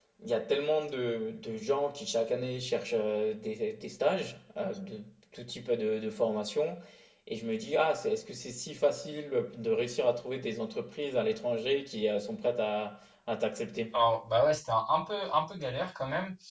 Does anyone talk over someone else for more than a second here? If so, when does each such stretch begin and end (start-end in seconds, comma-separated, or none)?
none